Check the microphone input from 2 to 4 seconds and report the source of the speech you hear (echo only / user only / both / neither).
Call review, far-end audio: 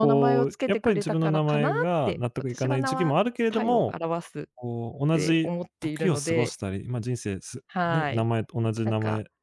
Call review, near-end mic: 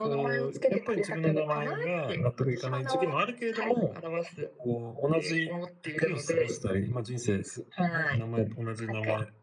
echo only